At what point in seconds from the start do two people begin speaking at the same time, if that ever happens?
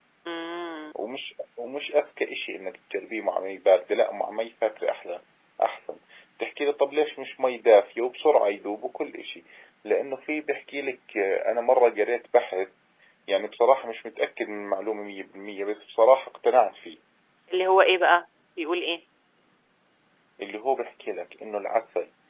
none

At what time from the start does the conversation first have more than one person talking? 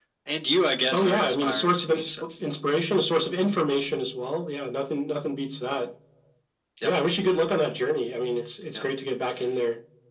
1 s

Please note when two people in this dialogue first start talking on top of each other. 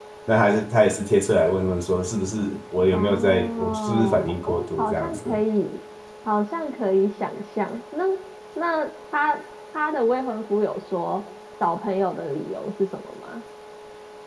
3 s

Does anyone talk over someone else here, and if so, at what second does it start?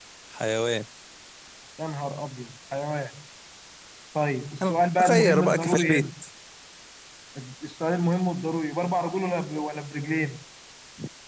5 s

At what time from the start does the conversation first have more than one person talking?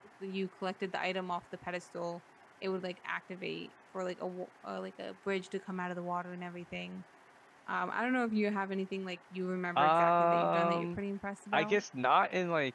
10 s

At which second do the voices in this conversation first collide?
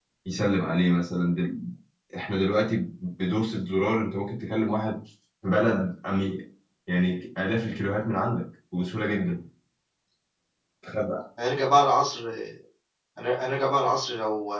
none

